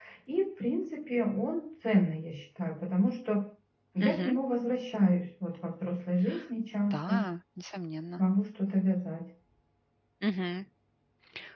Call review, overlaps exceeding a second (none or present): none